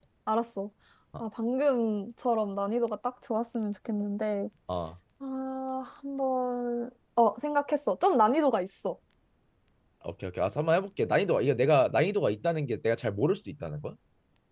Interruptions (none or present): none